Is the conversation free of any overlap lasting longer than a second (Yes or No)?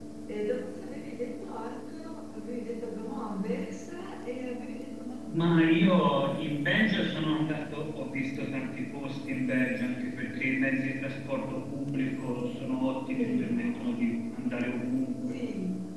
Yes